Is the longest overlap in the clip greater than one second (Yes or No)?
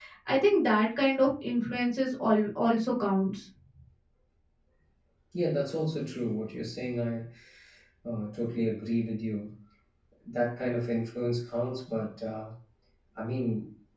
No